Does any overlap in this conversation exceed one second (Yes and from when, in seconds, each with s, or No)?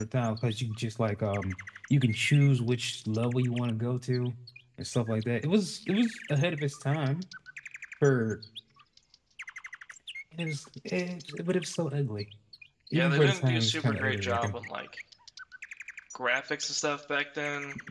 Yes, from 12.9 s